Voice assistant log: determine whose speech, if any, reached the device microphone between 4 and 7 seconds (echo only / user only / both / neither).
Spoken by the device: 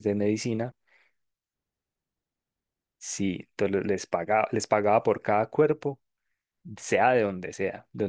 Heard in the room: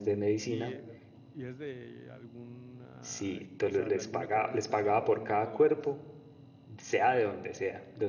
both